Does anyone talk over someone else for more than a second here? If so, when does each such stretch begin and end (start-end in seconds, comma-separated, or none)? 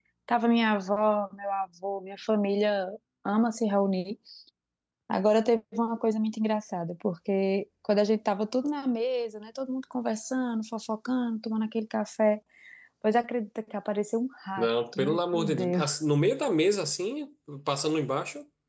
14.6-16.0